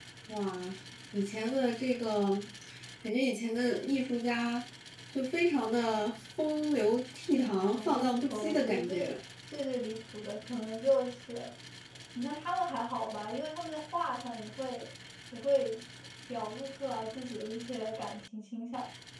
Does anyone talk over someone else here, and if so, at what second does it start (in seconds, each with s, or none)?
7.4 s